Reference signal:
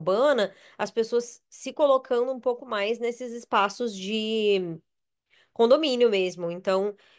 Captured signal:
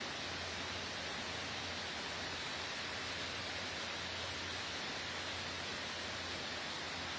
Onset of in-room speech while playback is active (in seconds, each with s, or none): none